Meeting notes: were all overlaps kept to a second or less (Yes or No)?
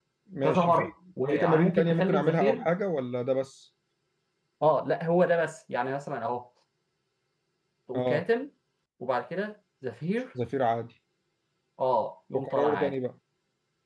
No